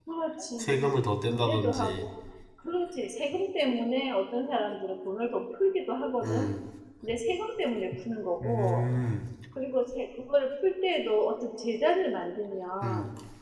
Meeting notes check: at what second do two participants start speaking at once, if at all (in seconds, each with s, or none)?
0.6 s